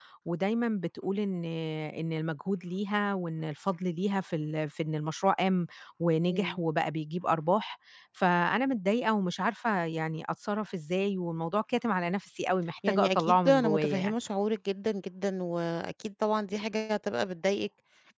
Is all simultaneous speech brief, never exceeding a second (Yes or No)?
No